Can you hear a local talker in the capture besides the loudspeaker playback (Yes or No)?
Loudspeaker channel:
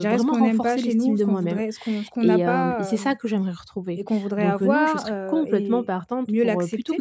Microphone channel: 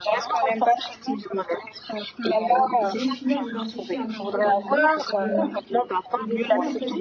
Yes